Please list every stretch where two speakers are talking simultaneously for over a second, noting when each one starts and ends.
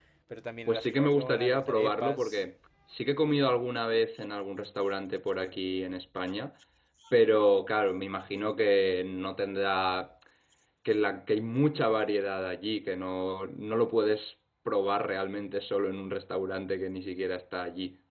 0.7-2.4

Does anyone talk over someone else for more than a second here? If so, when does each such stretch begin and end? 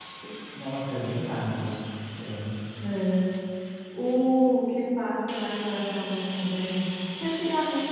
none

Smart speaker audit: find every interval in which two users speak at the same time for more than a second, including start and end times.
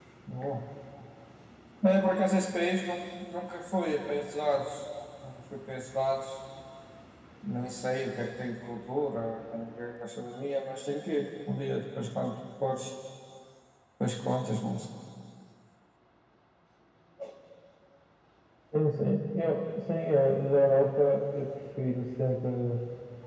none

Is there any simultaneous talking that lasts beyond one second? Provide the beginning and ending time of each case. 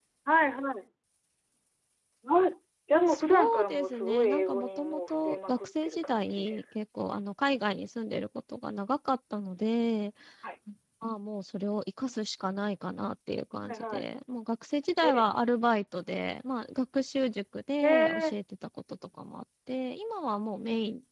3.1-6.6

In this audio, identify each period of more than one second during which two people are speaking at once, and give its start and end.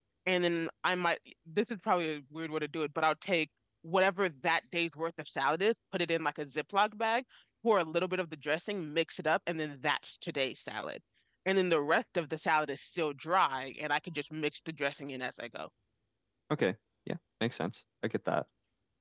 none

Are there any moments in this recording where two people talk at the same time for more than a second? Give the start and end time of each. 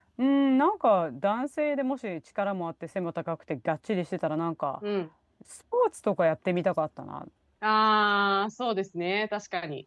none

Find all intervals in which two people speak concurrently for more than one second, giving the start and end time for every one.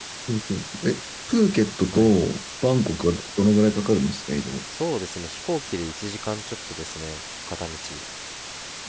none

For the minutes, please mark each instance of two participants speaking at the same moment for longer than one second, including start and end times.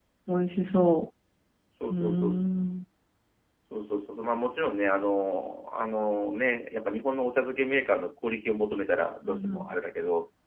none

